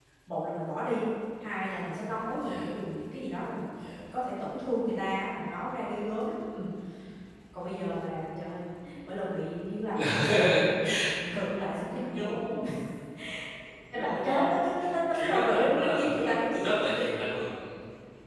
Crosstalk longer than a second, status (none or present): present